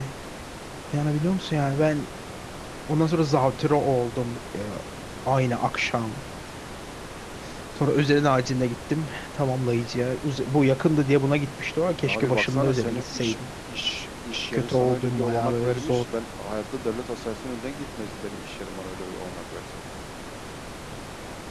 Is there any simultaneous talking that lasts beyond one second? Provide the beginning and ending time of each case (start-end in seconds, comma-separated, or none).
12.0-13.4, 14.5-16.0